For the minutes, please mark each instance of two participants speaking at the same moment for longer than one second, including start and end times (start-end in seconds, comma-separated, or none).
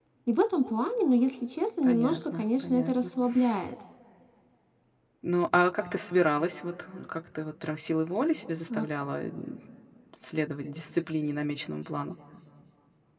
1.8-3.1